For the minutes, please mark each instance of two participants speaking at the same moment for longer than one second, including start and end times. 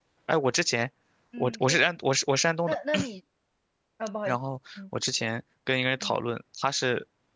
none

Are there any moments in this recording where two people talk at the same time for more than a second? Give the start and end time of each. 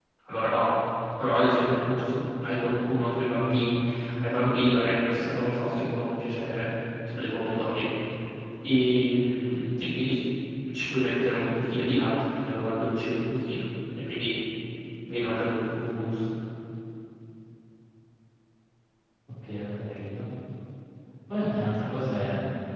none

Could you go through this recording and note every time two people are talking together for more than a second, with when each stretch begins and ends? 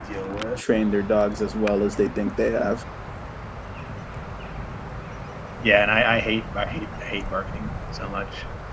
none

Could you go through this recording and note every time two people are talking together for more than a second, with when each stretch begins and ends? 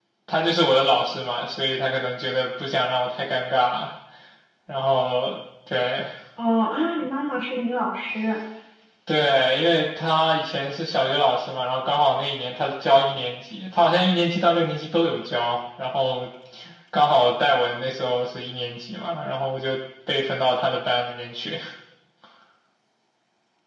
none

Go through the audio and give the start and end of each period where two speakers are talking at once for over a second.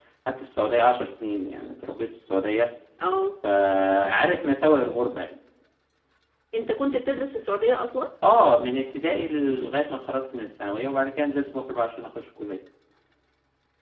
none

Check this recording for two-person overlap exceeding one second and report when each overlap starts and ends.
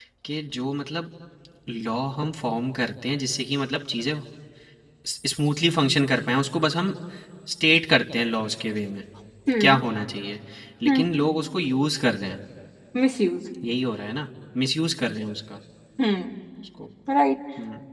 none

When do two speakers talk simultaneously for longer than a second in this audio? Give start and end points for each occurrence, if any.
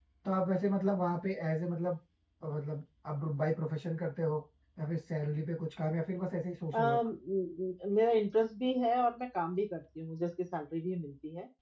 none

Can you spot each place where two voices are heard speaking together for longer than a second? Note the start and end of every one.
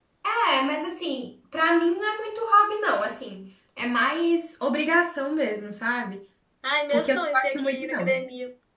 6.9-8.2

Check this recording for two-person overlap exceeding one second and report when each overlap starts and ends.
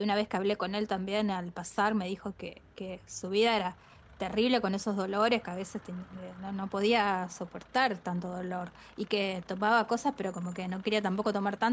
none

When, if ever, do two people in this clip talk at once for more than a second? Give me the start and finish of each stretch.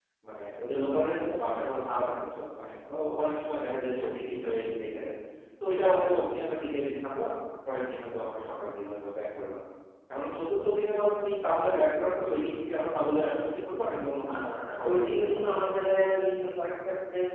14.3-15.5

